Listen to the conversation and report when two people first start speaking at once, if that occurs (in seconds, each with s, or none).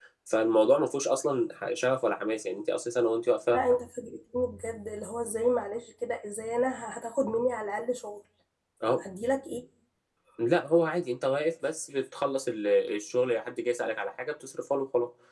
none